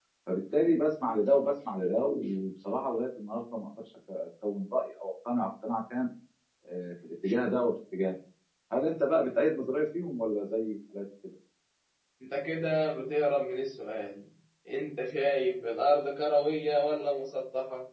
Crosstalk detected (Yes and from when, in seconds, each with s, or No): No